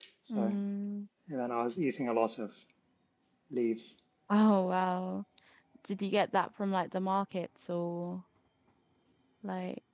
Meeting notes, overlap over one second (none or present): none